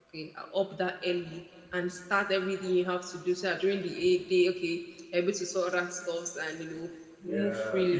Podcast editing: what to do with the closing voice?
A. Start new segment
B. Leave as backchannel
A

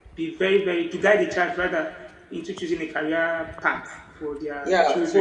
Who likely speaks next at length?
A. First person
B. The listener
B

